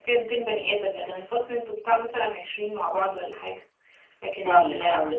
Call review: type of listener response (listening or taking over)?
taking over